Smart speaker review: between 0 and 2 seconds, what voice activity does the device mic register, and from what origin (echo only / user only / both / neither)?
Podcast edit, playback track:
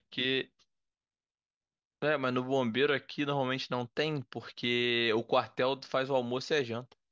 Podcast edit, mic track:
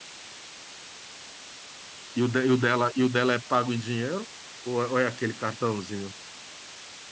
neither